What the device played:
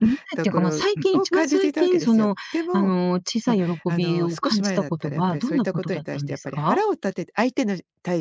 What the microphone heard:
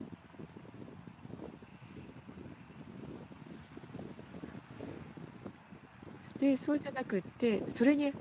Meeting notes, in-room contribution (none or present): present